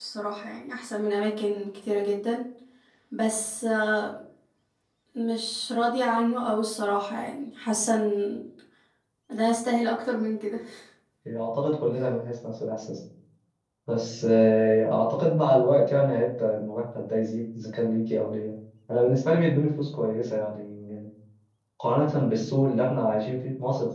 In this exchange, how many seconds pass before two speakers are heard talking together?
none

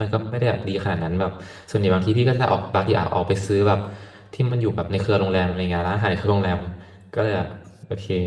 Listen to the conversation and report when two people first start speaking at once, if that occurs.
none

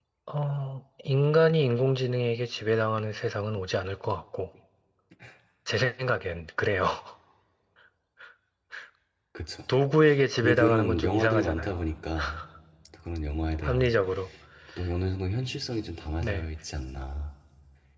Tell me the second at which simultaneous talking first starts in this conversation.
10.4 s

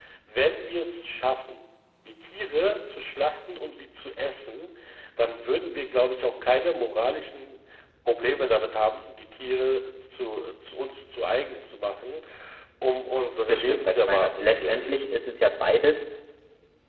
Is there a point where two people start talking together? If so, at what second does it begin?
13.5 s

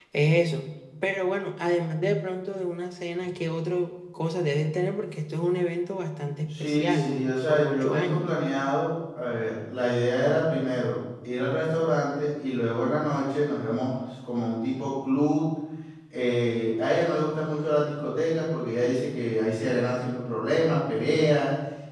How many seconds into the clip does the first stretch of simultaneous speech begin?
6.5 s

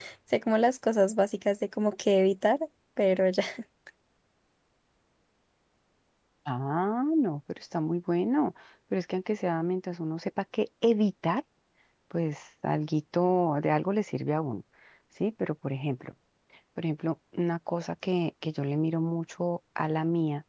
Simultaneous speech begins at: none

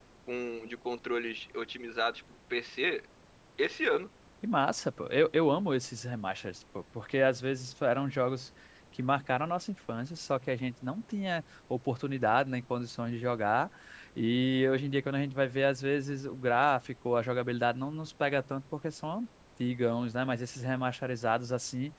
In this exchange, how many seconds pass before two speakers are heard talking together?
none

